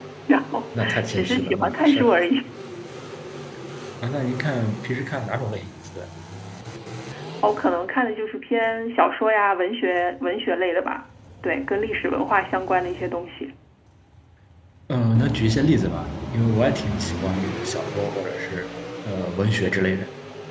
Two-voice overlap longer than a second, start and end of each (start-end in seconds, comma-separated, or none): 0.8-2.0